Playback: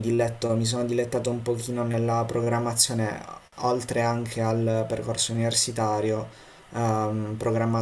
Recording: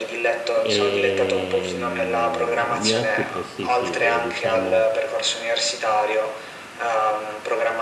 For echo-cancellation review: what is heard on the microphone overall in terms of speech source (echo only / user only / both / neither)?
both